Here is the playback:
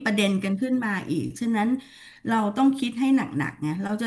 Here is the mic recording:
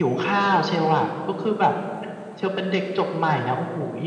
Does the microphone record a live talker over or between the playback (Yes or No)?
Yes